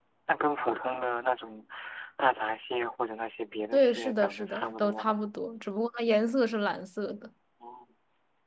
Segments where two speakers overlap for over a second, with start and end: 3.7-5.2

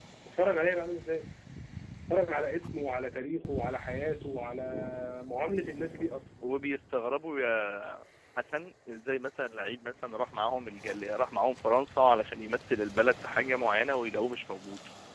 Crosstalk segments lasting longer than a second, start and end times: none

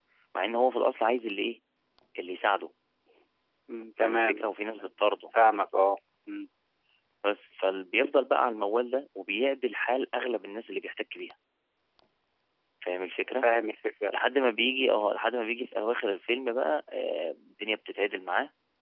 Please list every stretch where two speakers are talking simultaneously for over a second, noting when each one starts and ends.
none

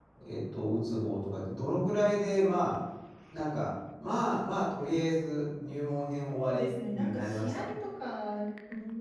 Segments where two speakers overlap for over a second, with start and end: 6.3-7.7

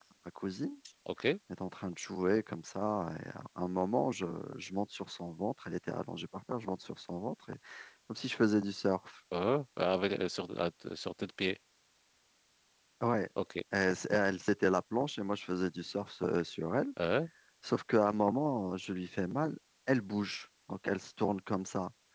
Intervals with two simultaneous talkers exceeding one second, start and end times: none

